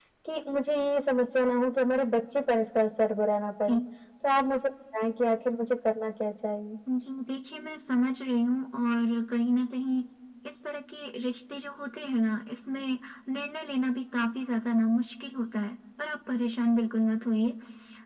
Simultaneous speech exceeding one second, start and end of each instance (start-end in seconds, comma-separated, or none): none